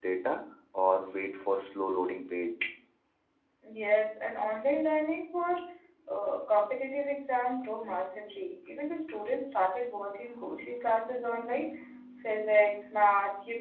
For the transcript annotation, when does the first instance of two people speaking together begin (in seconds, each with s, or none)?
none